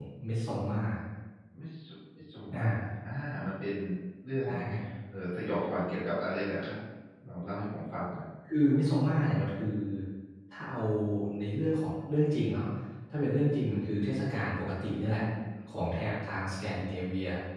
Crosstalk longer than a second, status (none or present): none